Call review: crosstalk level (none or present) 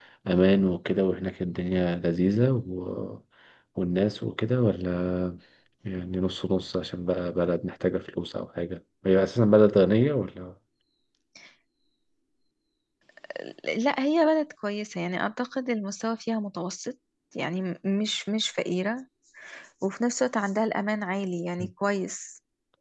none